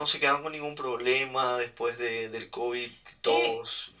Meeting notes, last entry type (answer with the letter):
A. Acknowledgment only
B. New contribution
B